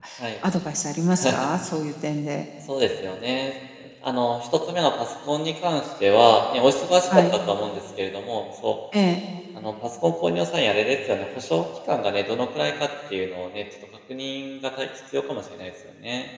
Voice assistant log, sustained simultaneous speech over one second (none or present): none